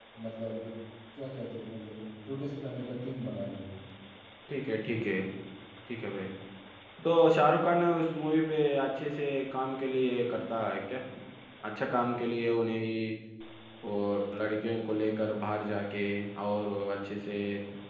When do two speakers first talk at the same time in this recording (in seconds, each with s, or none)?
none